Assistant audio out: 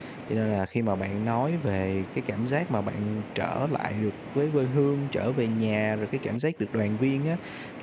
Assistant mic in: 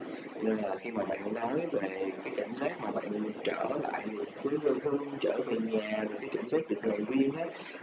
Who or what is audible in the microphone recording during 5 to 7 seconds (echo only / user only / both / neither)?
echo only